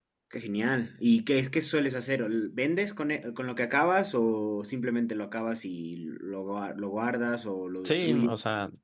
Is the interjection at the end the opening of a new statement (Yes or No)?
Yes